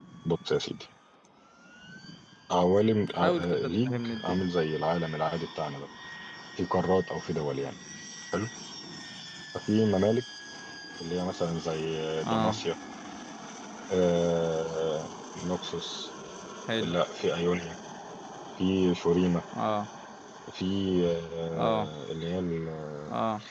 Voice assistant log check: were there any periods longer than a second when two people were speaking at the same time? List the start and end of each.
3.2-4.4

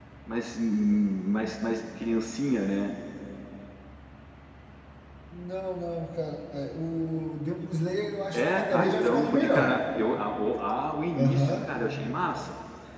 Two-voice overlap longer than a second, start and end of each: 8.3-9.8

